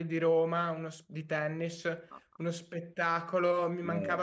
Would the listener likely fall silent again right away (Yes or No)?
Yes